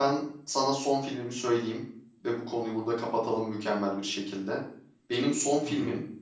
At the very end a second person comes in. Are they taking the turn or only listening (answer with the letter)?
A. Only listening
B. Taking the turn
A